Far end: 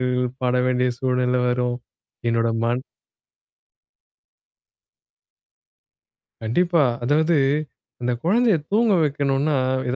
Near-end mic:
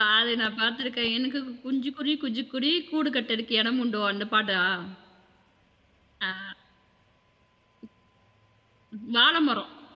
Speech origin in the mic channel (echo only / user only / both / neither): user only